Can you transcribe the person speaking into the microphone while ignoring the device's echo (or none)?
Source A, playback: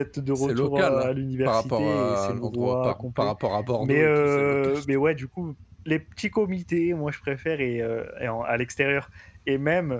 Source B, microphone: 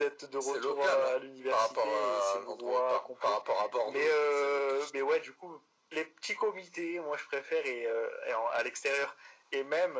none